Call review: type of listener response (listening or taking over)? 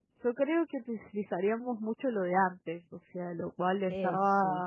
listening